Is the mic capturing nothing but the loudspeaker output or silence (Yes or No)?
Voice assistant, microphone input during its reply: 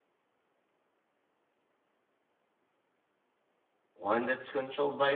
No